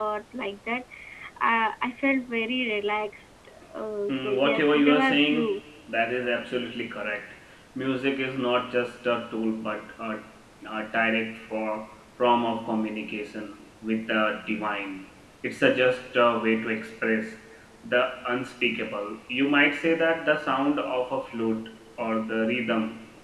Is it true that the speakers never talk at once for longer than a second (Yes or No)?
No